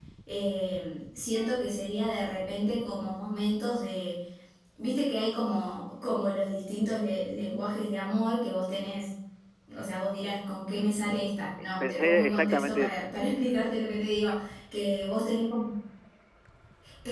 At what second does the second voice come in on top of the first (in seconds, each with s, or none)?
11.8 s